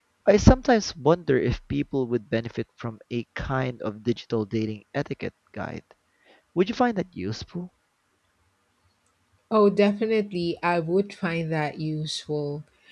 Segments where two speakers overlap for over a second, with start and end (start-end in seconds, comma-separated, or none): none